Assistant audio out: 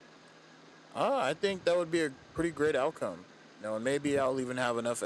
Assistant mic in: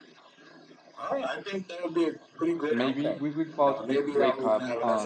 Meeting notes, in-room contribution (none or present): present